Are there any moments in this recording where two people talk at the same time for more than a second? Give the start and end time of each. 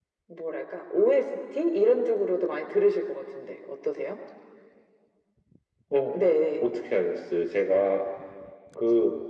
none

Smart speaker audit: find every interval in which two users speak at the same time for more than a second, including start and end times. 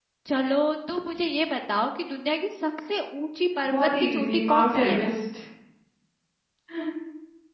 3.7-5.1

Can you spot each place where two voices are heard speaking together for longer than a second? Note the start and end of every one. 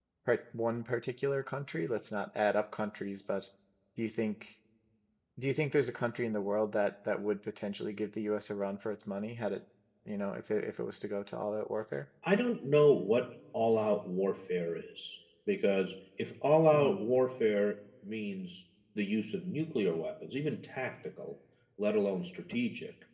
none

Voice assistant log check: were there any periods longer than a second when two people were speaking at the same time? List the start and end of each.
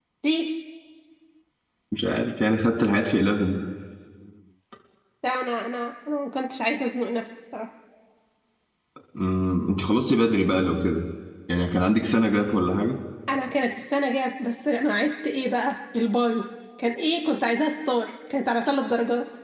none

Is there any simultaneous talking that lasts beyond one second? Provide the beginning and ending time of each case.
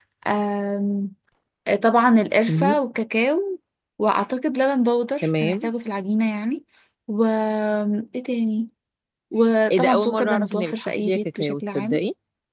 9.7-12.0

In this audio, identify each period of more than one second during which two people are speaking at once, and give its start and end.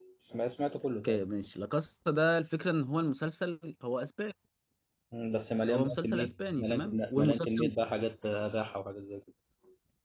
5.7-7.7

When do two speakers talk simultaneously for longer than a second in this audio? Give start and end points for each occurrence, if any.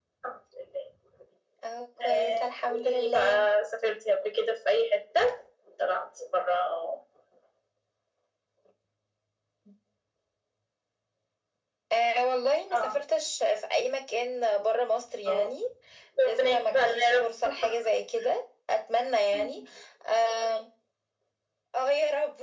2.0-3.5, 16.2-17.5

